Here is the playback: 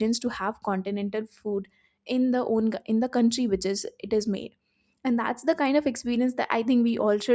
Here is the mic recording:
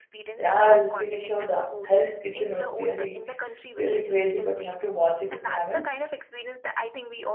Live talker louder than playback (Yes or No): Yes